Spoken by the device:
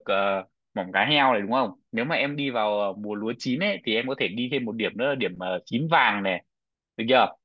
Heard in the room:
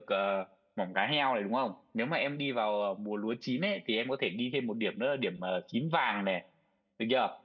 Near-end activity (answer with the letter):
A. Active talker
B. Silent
B